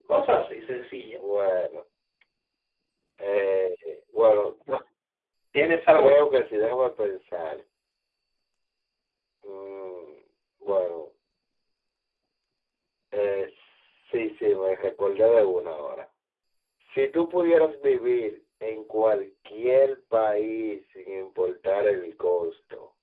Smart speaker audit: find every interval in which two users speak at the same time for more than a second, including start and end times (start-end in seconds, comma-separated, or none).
none